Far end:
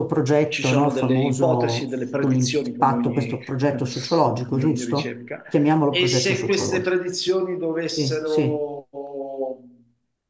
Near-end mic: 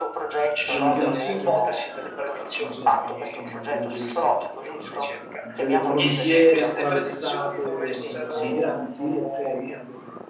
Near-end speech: present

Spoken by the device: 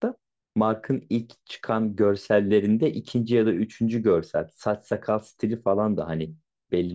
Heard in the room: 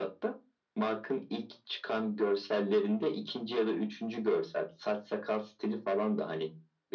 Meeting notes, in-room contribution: none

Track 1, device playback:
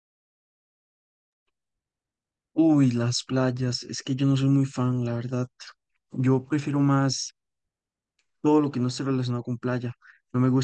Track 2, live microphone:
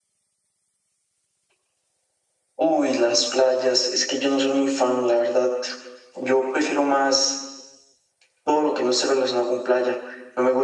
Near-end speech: none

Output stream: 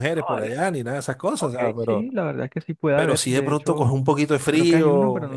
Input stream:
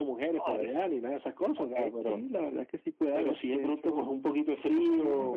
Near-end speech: none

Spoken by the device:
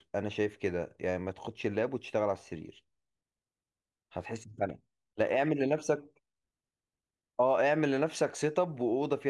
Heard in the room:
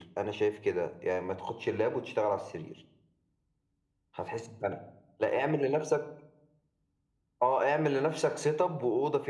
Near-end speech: none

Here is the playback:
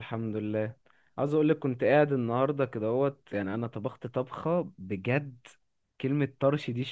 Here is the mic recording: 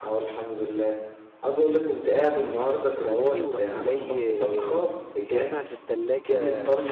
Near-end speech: present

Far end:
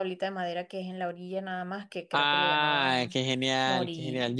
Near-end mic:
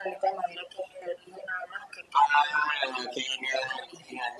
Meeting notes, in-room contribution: none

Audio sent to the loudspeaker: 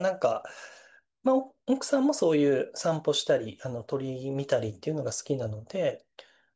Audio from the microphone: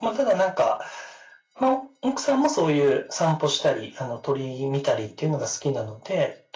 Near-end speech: none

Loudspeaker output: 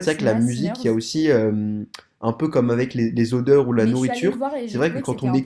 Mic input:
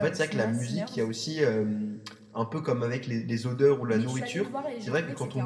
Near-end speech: none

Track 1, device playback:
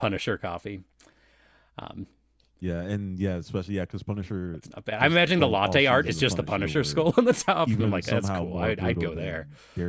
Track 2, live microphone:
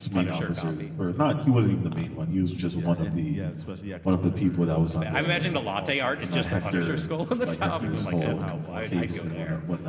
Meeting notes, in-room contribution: present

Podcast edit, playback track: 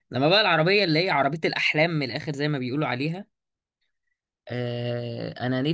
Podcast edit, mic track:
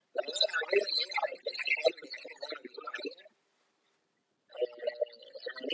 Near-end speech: none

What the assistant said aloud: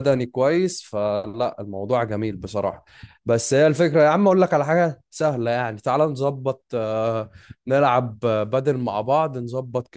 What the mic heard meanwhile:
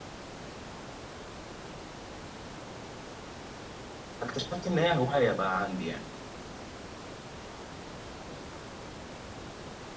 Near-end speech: present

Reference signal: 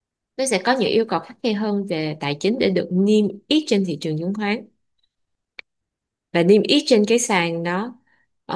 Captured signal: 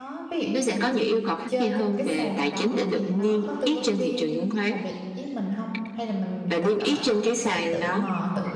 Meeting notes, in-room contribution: present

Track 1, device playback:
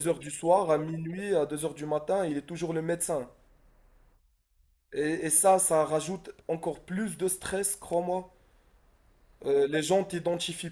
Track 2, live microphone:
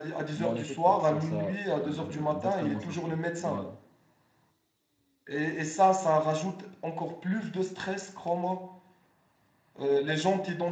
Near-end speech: present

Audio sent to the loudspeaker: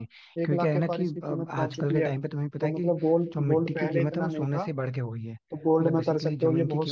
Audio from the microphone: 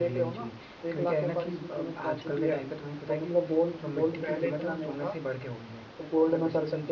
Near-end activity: none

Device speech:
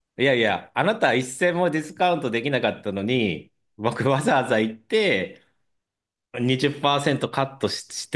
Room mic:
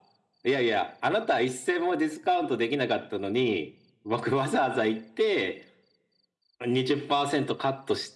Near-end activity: none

